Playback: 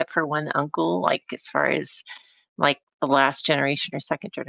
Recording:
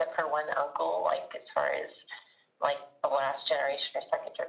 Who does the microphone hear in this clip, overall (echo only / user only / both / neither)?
echo only